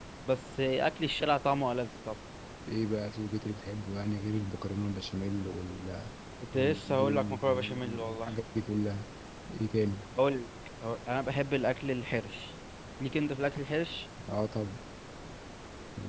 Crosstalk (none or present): present